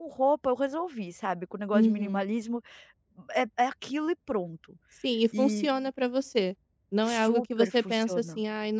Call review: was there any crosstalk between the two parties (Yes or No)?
Yes